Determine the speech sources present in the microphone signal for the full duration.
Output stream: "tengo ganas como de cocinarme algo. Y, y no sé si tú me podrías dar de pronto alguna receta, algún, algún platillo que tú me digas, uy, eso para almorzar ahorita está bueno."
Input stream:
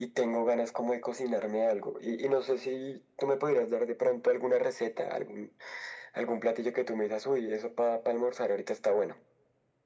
echo only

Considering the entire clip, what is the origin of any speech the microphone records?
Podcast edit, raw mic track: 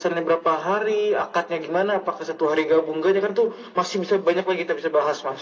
echo only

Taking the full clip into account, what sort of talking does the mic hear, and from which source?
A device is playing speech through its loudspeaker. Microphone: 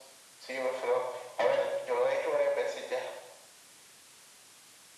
echo only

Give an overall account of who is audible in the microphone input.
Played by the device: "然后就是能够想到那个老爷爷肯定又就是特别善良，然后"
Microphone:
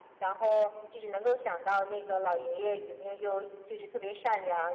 echo only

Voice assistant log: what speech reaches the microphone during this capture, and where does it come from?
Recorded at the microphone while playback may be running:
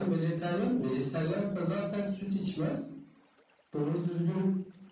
echo only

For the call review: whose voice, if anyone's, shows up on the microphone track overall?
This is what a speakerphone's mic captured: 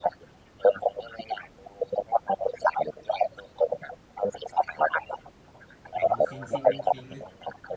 both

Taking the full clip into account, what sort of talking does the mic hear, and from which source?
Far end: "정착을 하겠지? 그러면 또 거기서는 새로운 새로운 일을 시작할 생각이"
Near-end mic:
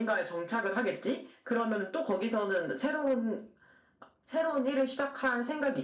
echo only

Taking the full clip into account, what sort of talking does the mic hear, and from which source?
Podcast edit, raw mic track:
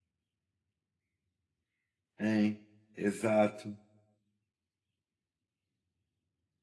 user only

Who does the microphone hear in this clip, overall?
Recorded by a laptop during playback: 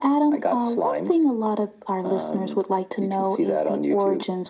echo only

